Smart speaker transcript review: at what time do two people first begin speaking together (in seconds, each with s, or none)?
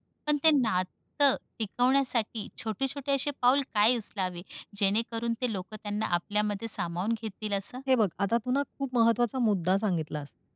none